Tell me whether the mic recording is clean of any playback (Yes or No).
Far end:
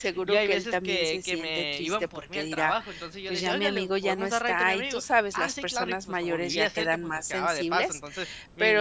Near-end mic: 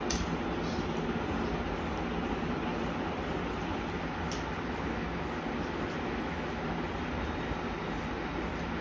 Yes